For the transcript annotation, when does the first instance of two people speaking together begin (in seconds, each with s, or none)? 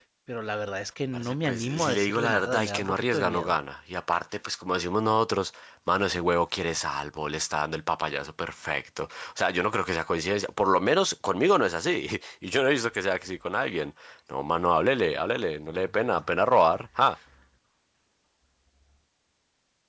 1.1 s